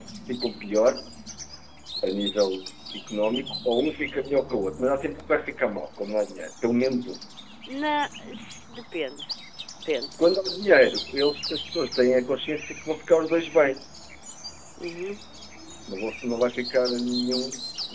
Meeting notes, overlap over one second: none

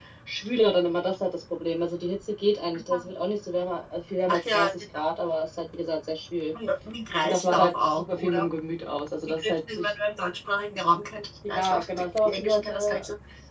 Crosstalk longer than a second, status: present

